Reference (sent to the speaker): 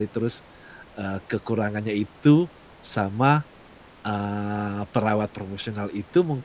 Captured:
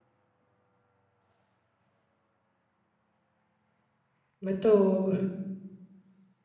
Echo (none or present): none